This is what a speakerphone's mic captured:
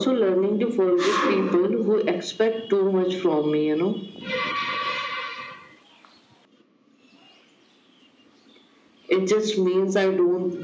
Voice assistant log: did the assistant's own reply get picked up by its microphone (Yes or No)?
Yes